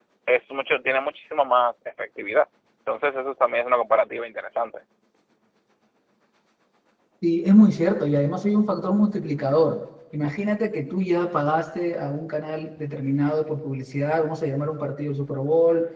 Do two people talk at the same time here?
No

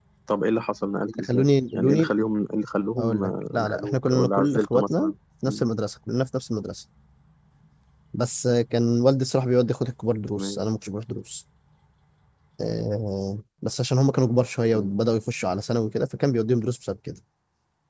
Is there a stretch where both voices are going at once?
Yes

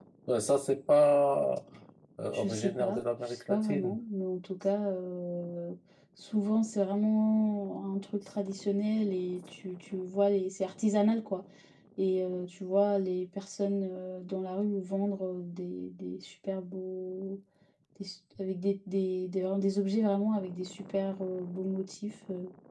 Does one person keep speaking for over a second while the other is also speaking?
Yes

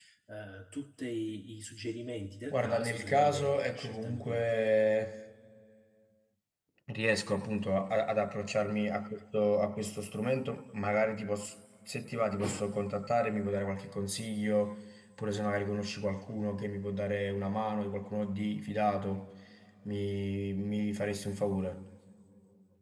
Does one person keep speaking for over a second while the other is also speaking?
Yes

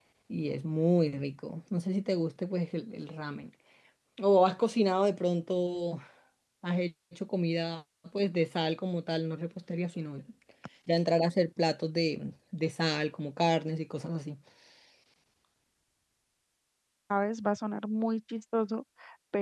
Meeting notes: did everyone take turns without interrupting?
Yes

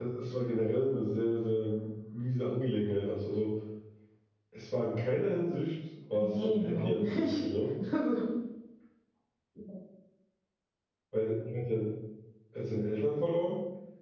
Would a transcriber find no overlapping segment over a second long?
No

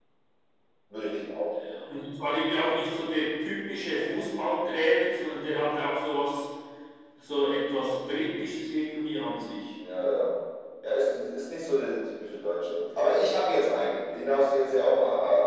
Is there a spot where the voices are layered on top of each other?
No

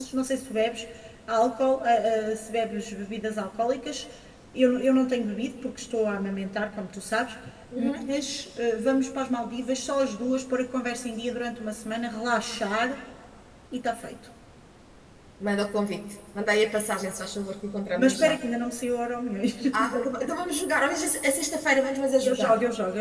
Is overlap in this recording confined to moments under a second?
Yes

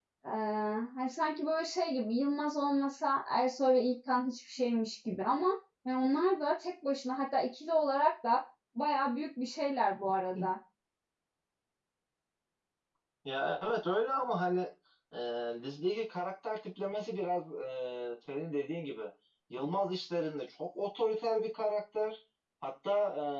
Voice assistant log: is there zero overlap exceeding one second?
Yes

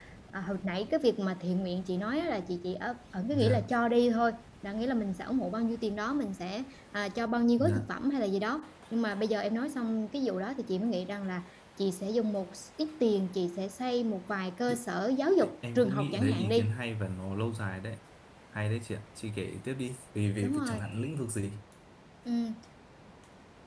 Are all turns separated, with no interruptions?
No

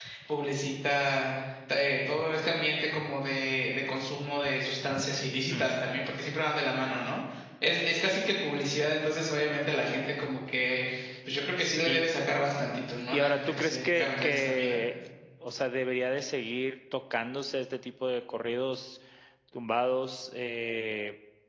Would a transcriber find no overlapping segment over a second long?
No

